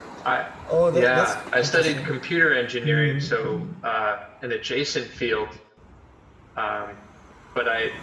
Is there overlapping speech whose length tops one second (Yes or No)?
Yes